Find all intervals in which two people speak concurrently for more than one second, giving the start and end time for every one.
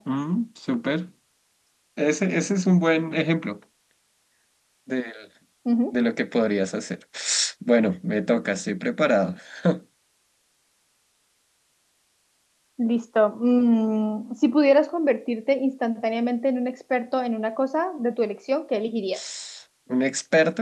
none

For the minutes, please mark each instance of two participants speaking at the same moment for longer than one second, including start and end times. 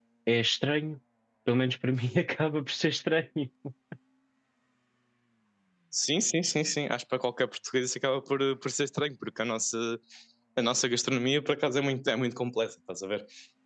none

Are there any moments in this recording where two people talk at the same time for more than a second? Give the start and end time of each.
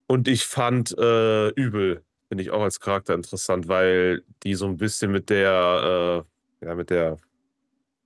none

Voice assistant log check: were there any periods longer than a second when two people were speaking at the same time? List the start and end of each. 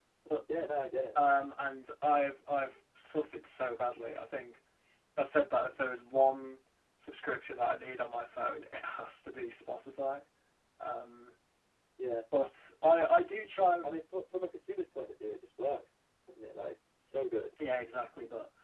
none

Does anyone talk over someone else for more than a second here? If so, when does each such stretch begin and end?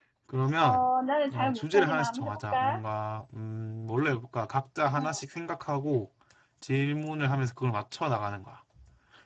1.3-2.8

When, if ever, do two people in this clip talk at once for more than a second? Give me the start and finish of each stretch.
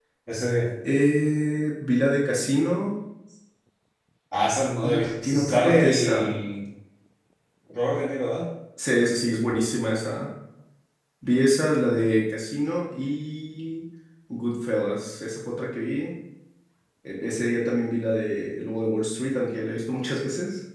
4.8-6.3

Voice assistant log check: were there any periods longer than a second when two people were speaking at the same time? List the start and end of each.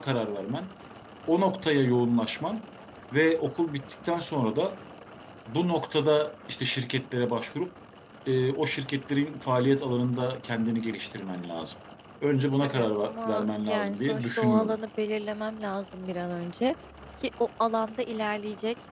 12.6-14.8

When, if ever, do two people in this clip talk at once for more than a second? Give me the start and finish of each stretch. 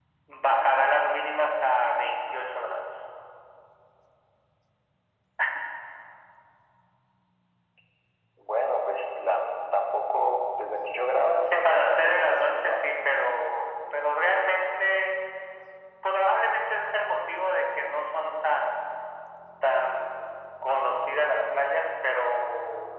11.4-12.8

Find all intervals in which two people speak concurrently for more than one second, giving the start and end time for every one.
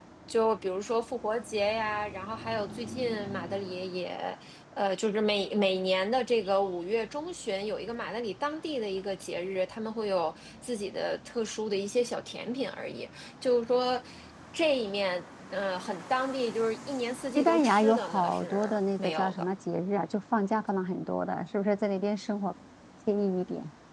17.4-19.5

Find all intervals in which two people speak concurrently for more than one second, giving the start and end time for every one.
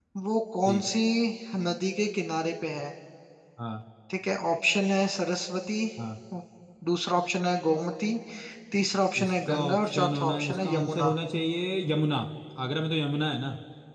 9.2-11.1

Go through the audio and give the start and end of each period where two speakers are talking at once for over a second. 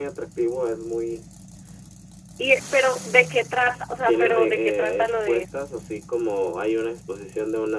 4.1-5.4

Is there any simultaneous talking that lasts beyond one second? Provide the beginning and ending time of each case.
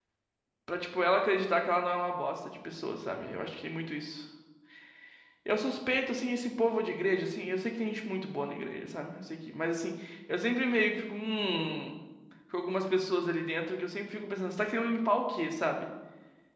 none

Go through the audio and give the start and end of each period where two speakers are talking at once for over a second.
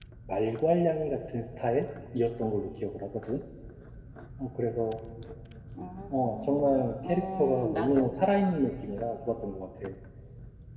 6.1-8.1

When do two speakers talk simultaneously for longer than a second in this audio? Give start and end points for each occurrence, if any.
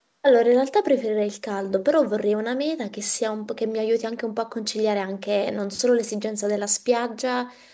none

